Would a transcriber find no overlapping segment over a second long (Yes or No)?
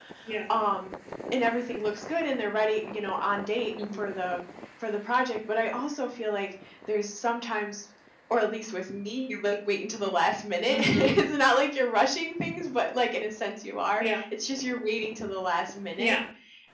Yes